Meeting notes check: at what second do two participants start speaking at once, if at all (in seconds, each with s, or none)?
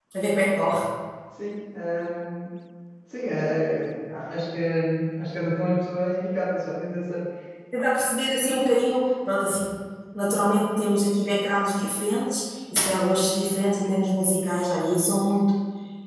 none